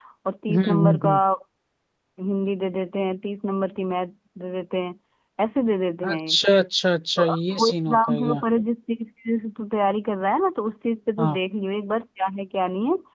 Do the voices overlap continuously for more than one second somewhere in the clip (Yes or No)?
Yes